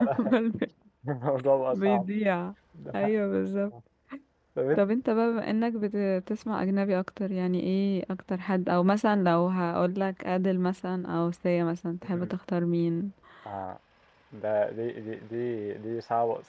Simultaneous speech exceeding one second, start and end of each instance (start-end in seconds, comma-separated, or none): none